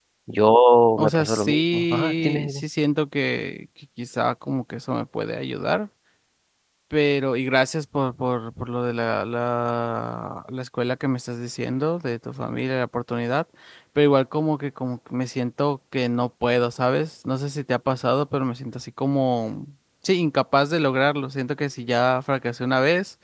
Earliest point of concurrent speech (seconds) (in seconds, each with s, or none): 1.0 s